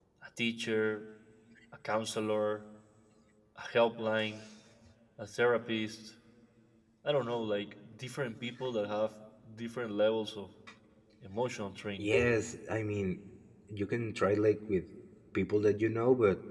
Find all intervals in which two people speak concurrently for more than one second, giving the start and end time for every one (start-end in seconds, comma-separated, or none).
none